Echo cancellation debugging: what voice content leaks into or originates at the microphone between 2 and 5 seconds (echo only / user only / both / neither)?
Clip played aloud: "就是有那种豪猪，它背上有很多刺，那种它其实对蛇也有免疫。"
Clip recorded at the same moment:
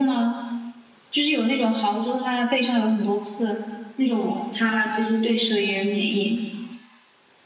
echo only